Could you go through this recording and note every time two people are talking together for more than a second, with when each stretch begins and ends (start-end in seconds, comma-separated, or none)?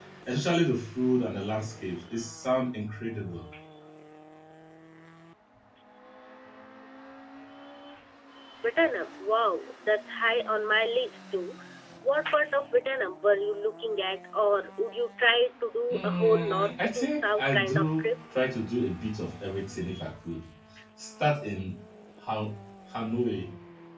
15.9-18.1